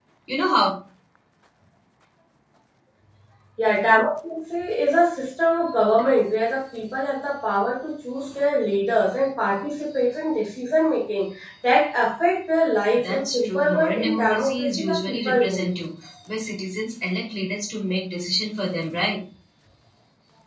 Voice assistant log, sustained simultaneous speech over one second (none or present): present